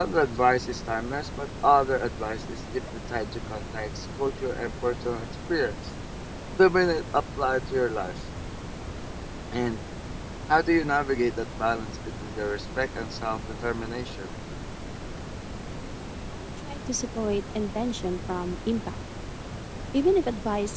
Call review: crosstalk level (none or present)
none